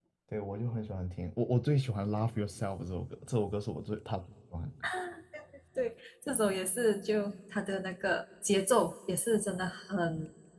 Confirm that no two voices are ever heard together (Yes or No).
Yes